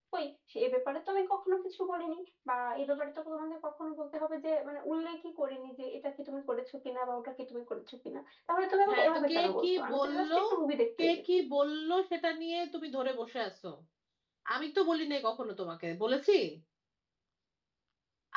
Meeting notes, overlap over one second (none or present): present